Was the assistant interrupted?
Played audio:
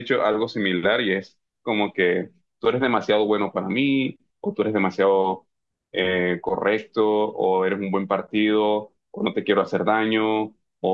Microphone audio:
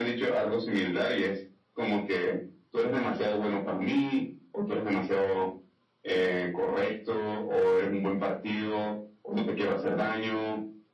No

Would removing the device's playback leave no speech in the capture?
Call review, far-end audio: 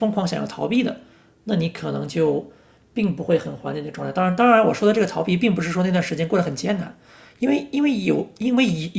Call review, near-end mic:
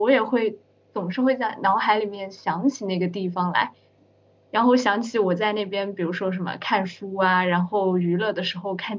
No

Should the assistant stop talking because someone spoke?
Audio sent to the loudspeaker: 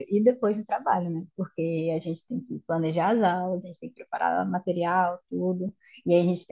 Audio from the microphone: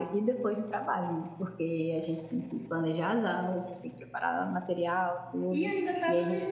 Yes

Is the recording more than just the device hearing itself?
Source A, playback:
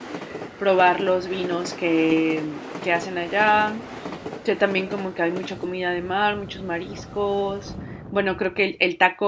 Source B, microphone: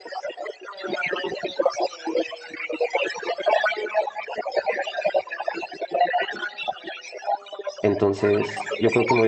Yes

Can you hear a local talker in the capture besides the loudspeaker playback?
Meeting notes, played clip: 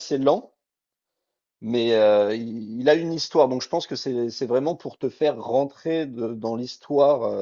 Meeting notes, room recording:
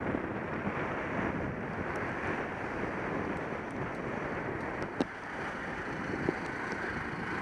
No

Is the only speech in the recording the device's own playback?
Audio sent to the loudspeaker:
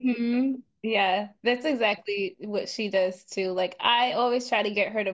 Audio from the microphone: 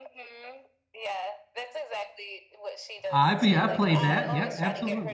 No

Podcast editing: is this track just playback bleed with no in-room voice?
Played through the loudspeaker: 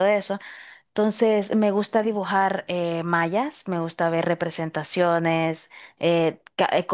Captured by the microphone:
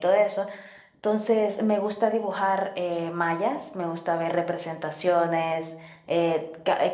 Yes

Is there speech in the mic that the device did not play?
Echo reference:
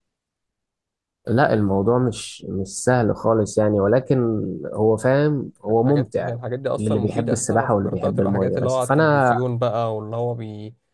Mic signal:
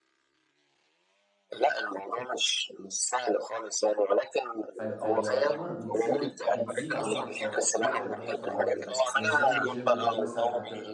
Yes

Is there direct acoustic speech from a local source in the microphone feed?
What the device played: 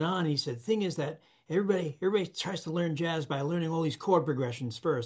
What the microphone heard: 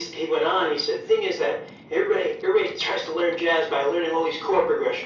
No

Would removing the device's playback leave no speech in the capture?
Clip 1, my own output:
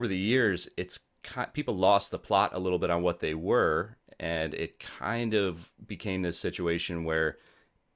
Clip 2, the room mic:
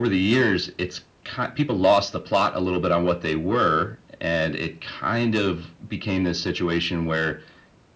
Yes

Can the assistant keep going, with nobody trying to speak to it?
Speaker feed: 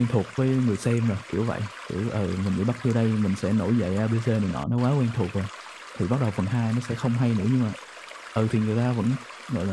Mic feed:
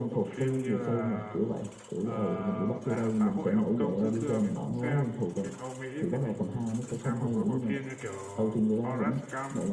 No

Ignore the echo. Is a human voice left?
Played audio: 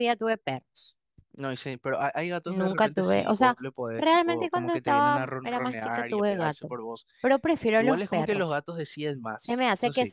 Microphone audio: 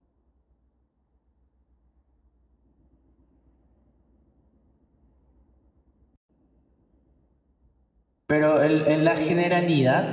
Yes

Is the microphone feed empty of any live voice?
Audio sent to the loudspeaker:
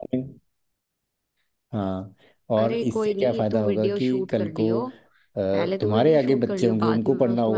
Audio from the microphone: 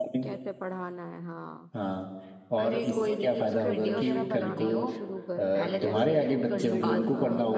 No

